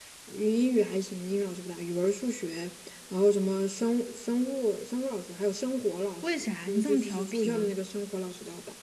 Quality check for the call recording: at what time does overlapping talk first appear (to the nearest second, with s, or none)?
6 s